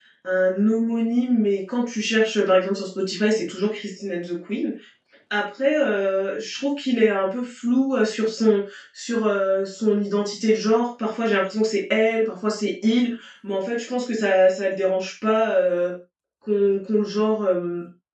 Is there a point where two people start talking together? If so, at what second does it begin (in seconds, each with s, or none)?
none